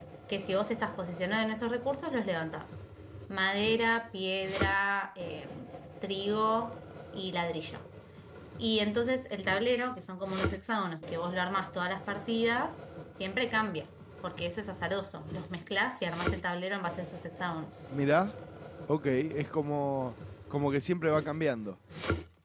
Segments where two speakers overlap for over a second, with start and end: none

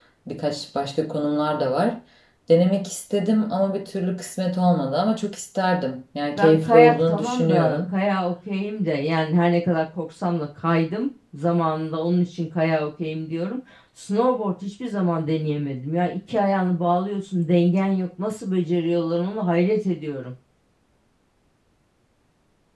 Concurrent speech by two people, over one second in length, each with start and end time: 6.4-7.8

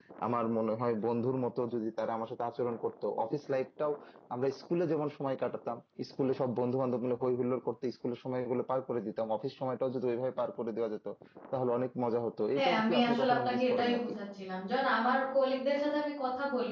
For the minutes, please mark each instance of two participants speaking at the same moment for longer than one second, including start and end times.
12.6-14.0

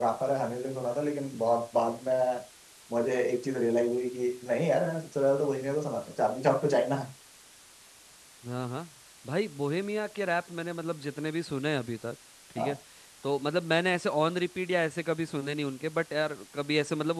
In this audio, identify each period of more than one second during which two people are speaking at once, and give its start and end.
none

